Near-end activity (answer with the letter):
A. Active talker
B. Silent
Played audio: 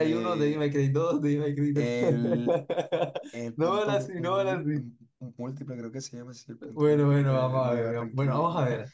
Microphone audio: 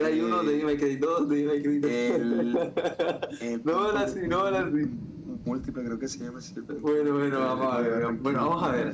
B